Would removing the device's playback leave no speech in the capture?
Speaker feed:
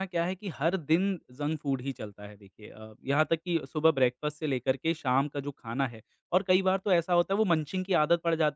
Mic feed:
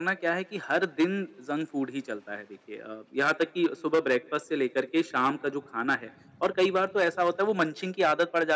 Yes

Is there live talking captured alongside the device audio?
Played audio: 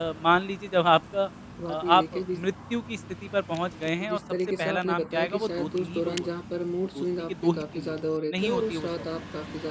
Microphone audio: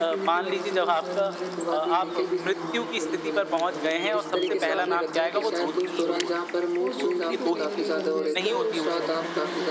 Yes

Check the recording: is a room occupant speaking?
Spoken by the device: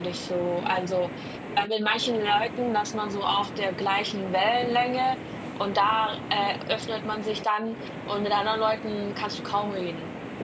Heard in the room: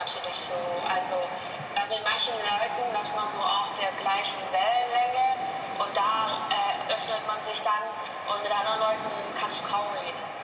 No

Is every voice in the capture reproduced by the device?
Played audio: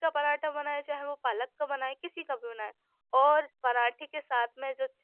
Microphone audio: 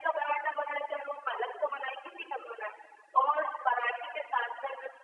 Yes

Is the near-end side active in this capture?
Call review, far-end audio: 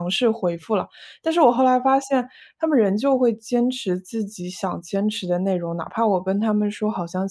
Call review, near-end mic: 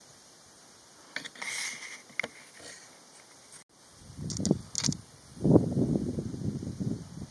No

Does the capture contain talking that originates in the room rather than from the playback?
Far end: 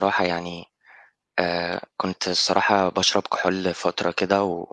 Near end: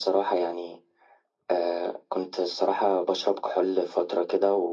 No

